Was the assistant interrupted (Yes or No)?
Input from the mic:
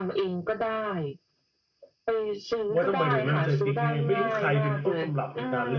Yes